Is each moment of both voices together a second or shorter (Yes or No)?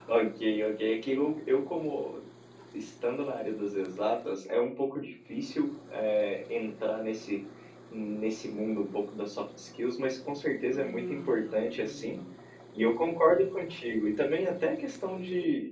No